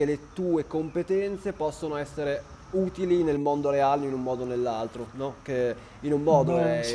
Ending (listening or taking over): listening